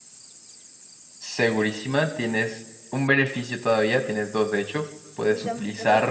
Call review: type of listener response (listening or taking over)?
taking over